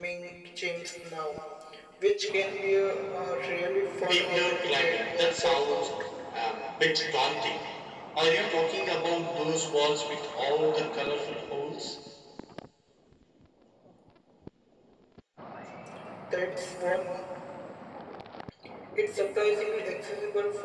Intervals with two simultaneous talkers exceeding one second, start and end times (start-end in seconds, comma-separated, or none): 4.1-5.9